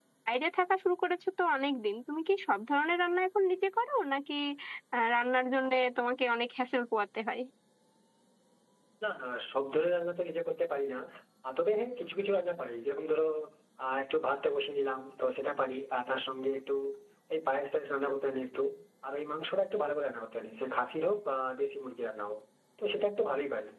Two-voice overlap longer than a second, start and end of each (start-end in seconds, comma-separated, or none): none